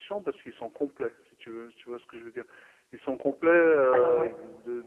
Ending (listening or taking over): listening